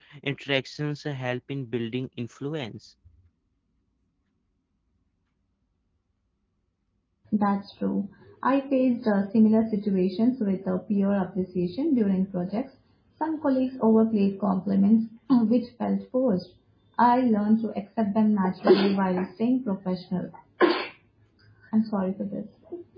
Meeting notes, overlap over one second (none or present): none